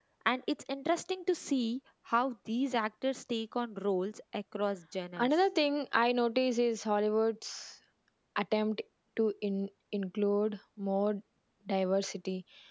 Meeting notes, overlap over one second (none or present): none